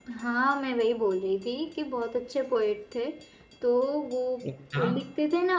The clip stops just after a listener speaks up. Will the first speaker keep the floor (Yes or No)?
Yes